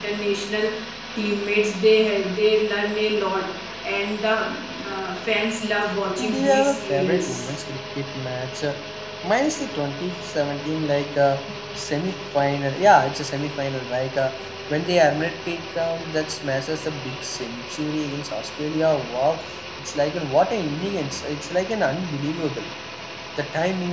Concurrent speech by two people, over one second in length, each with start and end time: 6.2-7.5

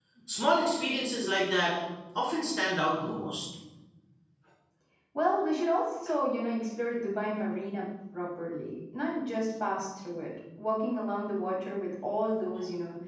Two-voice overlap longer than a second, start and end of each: none

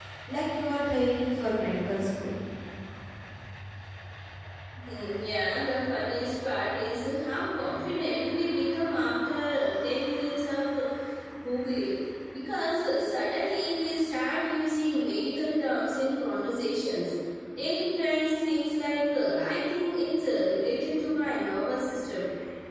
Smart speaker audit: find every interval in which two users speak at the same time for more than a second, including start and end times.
none

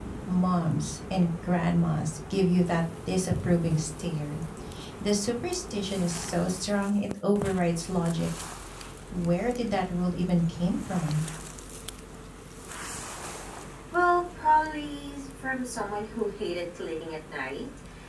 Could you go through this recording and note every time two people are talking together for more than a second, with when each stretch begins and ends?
none

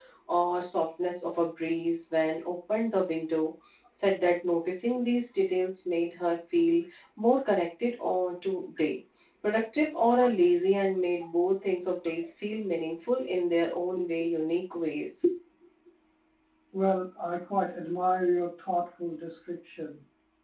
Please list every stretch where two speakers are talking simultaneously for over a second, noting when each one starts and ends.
none

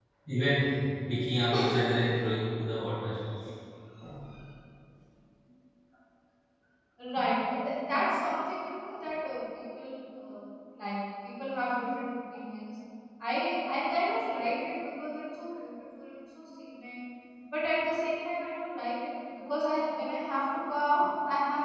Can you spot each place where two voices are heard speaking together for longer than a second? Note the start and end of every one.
none

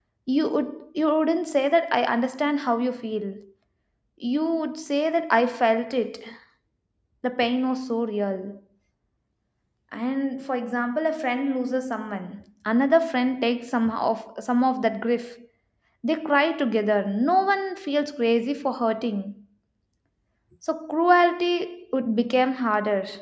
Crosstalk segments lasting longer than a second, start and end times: none

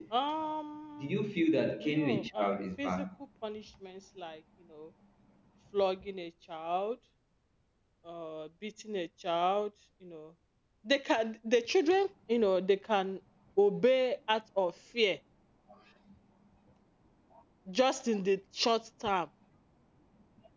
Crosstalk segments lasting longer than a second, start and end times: 1.8-3.0

